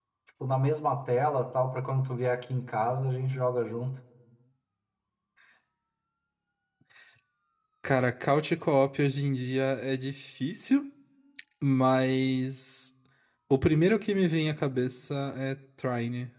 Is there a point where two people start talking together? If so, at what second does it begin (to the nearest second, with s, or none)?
none